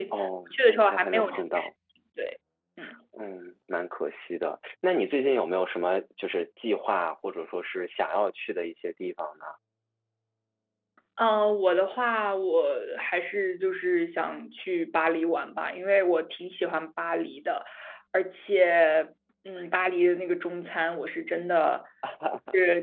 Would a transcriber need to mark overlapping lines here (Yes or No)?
Yes